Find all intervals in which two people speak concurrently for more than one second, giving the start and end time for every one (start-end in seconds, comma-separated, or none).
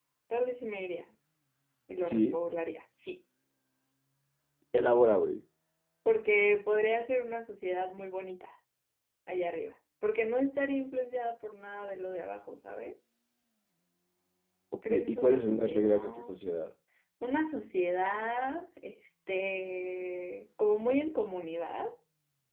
14.9-16.3